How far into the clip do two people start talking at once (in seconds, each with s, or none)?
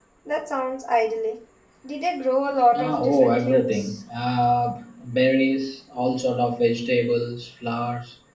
2.7 s